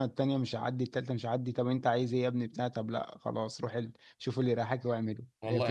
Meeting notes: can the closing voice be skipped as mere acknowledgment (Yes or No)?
No